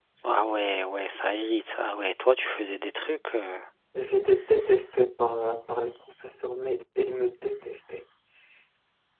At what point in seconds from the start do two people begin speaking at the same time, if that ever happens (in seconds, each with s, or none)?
none